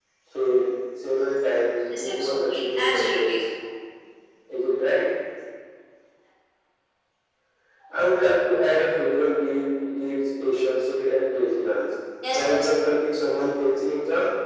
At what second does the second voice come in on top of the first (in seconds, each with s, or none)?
1.9 s